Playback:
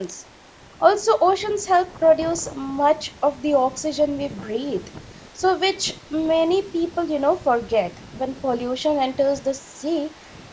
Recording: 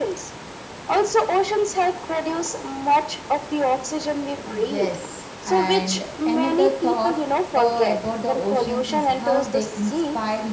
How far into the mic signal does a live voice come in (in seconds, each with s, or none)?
4.4 s